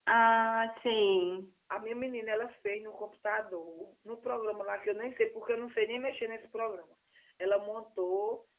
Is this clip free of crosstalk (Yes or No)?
Yes